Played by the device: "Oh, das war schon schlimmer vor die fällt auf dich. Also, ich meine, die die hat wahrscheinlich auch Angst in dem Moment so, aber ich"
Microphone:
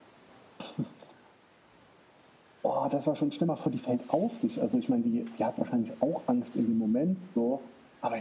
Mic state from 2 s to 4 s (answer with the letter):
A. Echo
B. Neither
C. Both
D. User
A